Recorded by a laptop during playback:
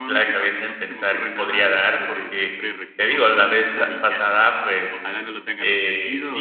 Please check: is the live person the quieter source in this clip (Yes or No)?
No